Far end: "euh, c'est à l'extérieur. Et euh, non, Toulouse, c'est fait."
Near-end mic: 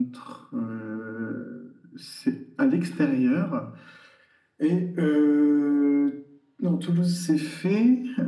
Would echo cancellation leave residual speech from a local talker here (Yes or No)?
No